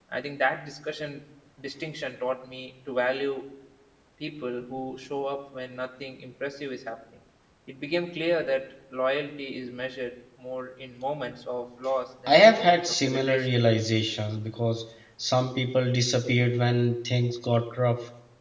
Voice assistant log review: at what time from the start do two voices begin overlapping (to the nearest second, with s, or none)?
12 s